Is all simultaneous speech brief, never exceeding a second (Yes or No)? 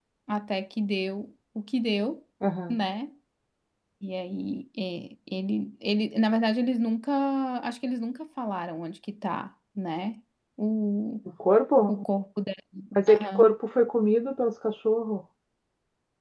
Yes